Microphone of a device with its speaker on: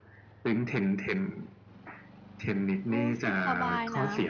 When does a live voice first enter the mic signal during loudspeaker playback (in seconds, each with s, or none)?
2.6 s